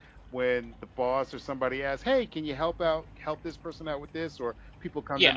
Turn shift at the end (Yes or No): No